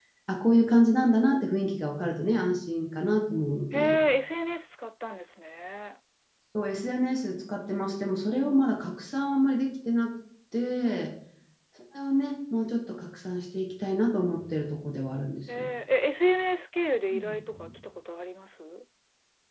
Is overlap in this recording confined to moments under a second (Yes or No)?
Yes